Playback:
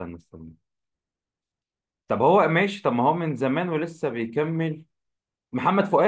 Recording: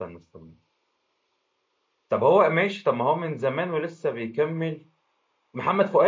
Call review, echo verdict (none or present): present